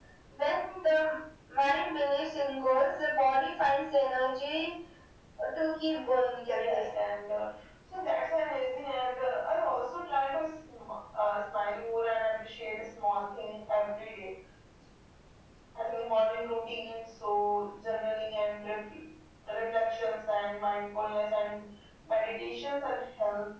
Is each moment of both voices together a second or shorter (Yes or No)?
Yes